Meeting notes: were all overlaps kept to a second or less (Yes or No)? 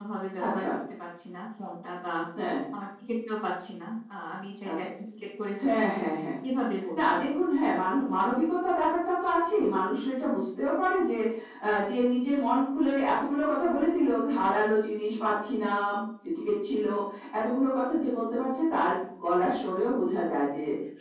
Yes